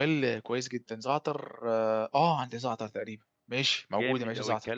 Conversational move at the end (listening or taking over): taking over